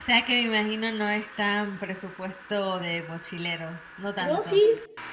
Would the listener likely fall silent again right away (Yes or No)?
No